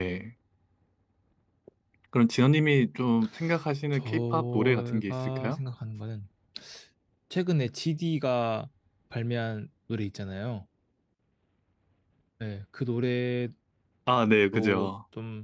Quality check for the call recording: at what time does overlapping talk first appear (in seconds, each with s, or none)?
3.9 s